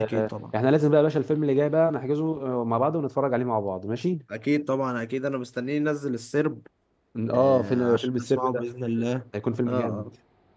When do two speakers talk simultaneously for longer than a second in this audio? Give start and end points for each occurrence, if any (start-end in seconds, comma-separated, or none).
7.3-8.6